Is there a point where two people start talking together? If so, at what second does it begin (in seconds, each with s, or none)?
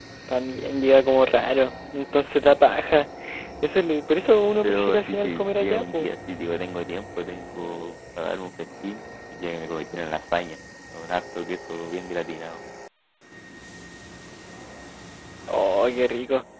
4.6 s